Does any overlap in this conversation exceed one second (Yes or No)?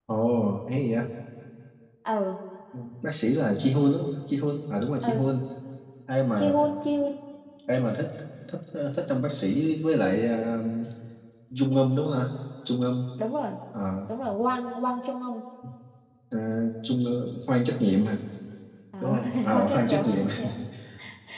Yes